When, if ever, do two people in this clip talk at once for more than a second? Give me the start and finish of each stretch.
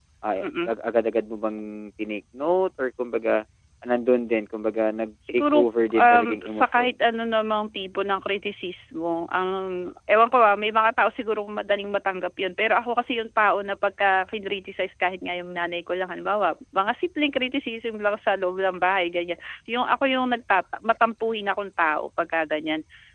5.3-6.9

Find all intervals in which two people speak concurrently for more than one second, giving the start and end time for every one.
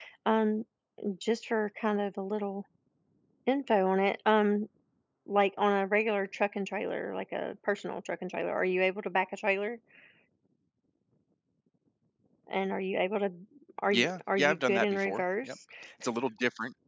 13.9-15.6

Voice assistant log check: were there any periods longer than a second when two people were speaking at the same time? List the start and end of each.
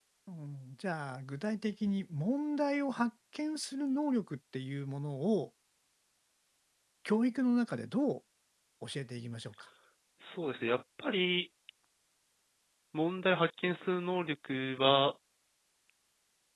none

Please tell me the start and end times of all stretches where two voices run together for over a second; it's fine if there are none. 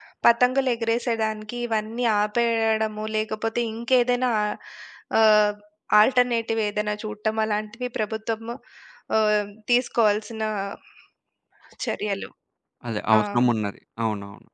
none

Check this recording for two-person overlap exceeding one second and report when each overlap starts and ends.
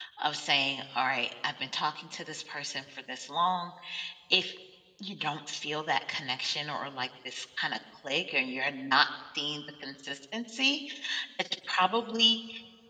none

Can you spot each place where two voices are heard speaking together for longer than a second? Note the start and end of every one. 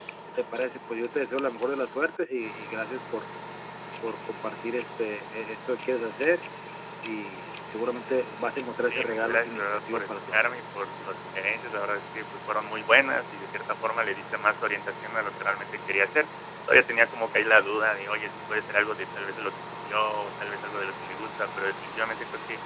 8.9-10.6

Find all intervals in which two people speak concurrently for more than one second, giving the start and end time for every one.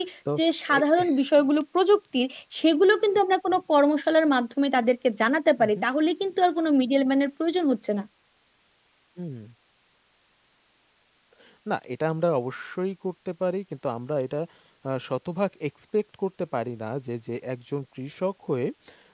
none

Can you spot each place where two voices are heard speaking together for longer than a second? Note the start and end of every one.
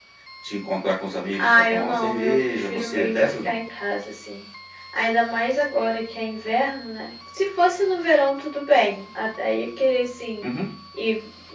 1.4-3.5

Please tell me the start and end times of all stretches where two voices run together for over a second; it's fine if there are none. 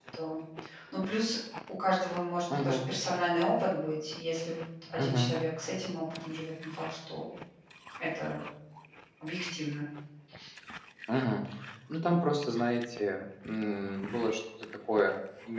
none

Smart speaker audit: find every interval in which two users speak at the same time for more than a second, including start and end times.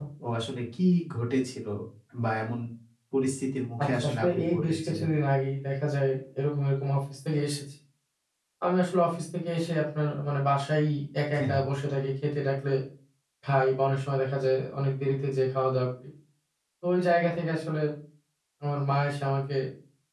3.8-5.1

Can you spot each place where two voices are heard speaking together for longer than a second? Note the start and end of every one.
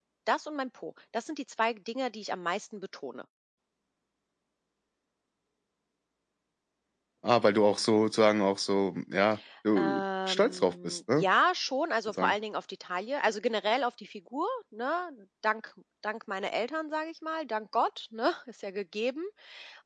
9.8-11.2

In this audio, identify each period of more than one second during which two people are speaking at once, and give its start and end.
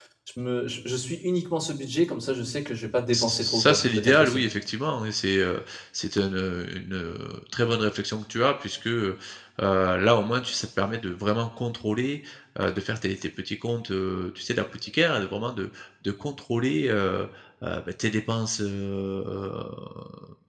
3.1-4.4

